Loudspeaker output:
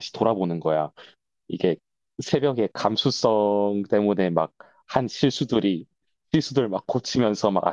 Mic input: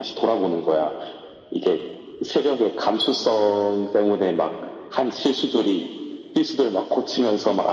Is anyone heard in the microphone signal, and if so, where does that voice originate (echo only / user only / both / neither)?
echo only